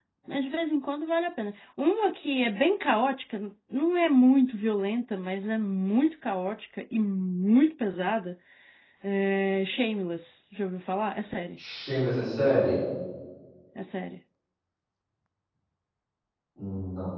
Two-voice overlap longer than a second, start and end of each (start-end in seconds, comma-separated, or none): none